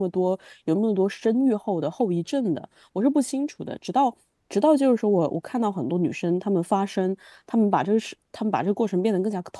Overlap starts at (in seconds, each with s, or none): none